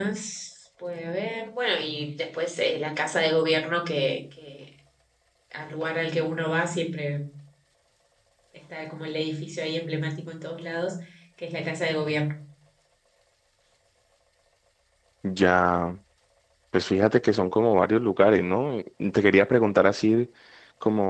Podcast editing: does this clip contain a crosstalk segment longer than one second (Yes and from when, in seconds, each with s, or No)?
No